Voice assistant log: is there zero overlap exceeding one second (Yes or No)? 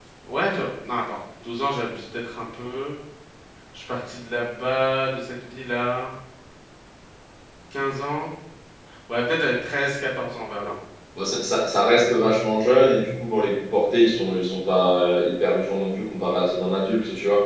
Yes